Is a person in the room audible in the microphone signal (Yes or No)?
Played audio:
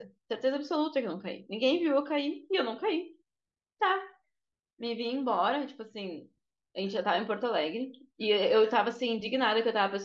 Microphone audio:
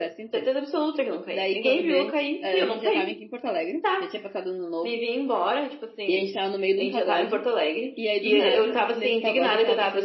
Yes